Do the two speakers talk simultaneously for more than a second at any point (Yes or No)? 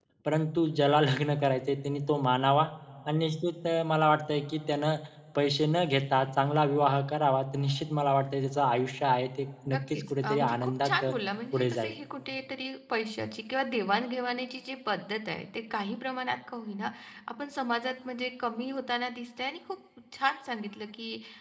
Yes